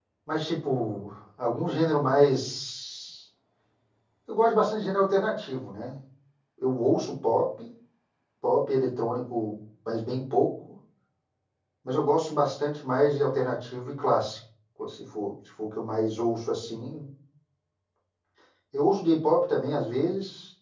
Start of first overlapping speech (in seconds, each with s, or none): none